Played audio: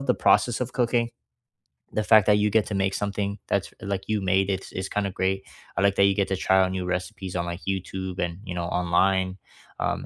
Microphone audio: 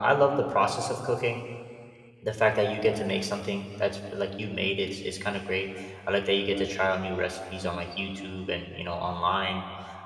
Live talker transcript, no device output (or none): none